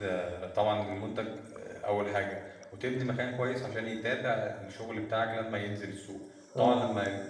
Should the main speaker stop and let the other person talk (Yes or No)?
No